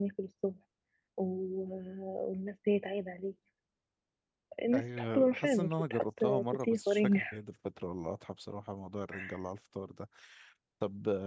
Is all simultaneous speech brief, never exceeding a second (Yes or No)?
No